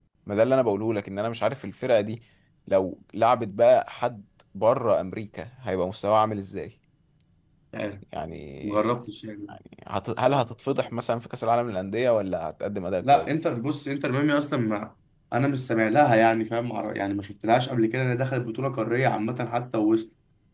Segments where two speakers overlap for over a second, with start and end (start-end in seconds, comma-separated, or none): none